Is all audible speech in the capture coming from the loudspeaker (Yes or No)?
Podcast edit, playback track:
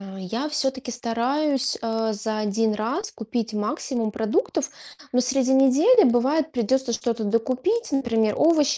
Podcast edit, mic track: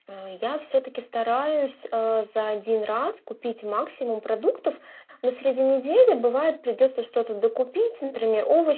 Yes